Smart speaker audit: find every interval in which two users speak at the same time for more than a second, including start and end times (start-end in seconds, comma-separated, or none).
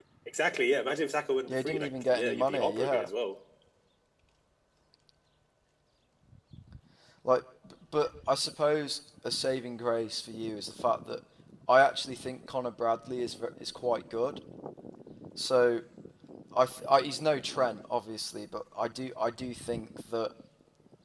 1.5-3.1